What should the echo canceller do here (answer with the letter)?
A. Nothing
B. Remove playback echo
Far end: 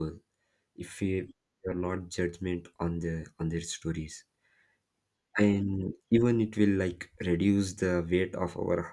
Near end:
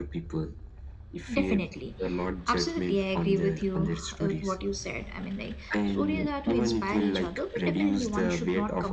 B